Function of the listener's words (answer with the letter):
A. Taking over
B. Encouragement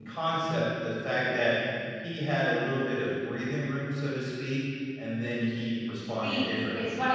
A